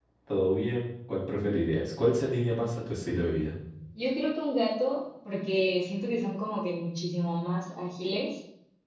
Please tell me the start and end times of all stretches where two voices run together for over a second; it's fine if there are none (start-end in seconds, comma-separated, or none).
none